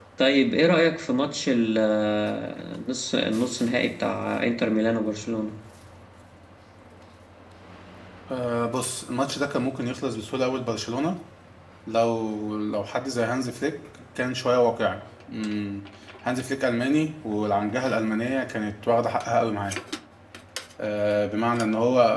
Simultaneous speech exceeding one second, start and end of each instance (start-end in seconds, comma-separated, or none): none